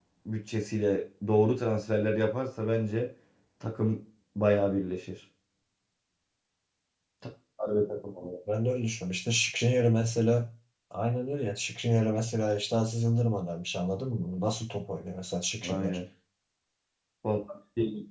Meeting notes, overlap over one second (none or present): none